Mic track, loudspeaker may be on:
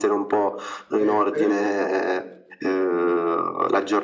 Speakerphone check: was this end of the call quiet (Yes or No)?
No